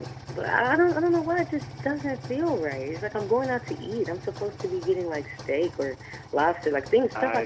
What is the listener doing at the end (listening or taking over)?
taking over